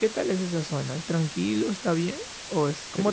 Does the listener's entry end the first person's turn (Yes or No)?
Yes